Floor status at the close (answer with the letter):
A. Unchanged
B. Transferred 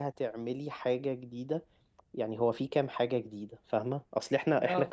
A